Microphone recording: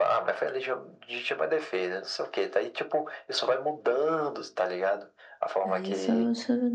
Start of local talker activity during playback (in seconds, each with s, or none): 5.6 s